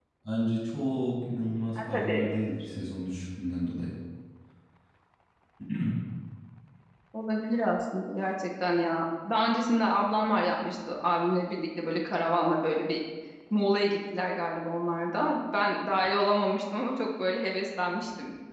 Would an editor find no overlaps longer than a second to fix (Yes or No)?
Yes